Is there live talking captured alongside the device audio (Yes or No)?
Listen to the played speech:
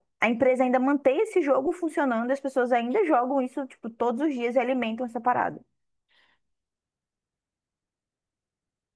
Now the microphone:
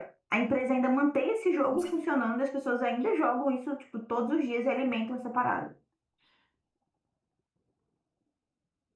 Yes